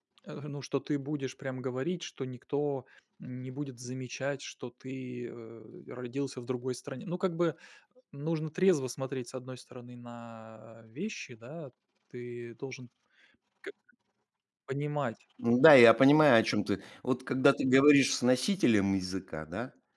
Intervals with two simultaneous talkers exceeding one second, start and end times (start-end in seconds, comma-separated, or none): none